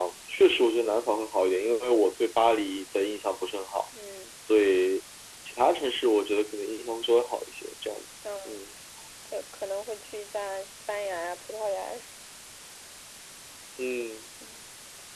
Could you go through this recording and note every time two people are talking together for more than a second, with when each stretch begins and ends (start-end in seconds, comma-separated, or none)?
none